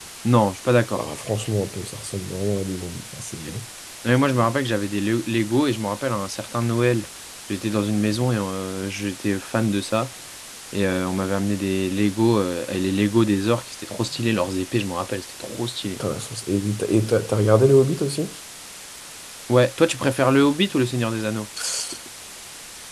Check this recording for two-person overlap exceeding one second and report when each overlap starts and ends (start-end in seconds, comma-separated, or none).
none